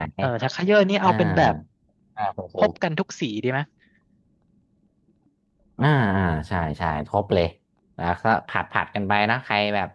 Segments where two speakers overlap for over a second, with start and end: none

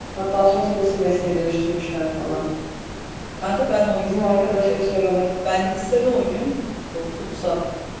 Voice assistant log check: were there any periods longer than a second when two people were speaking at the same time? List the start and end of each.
none

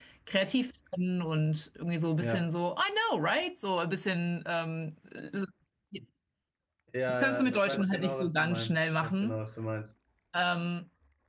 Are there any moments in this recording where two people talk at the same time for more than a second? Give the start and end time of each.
7.1-9.4

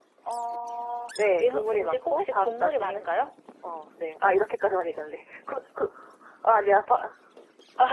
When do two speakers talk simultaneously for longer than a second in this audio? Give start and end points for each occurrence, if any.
1.4-3.0

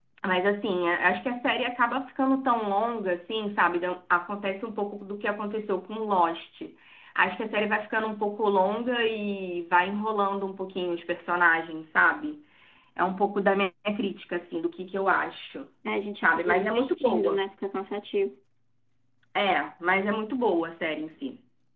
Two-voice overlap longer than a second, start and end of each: 16.2-17.4

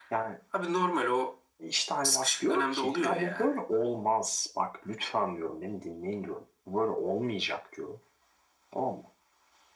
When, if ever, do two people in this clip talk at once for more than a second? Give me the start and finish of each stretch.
2.0-3.5

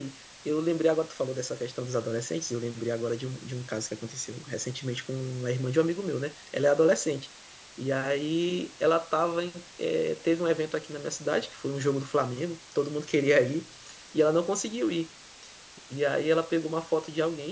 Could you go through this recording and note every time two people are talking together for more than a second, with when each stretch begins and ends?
none

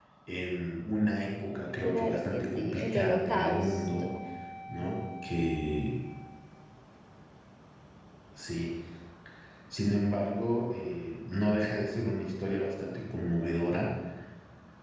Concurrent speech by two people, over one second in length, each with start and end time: 1.8-4.1

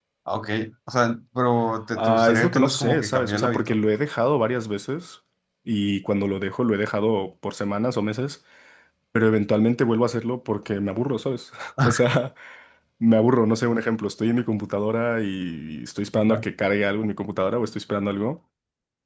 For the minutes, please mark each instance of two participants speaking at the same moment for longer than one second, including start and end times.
2.0-3.8

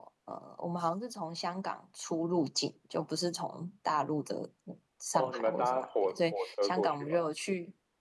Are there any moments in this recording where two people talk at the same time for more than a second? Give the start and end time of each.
5.2-7.2

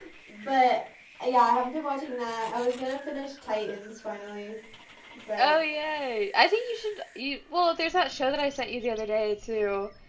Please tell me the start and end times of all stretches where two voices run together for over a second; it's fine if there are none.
none

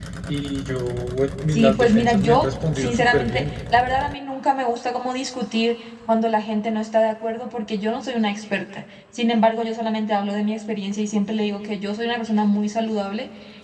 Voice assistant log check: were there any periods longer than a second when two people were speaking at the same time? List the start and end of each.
1.5-3.4

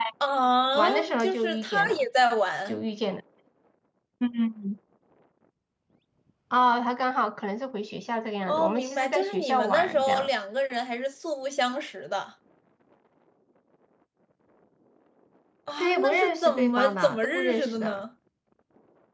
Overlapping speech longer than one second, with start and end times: 0.8-2.0, 8.5-10.3, 15.8-18.0

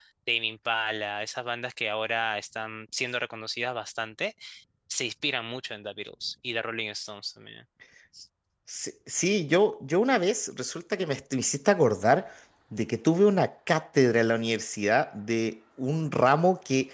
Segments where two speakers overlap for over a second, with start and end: none

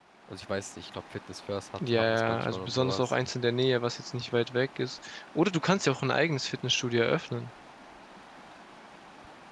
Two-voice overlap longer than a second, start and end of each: 1.8-3.1

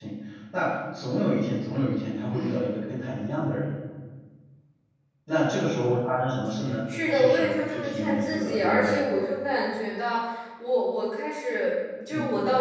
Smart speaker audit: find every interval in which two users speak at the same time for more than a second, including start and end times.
7.1-9.0

